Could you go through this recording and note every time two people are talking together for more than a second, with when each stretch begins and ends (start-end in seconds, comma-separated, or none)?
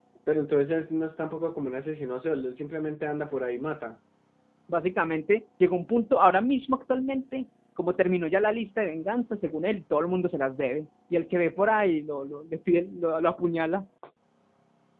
none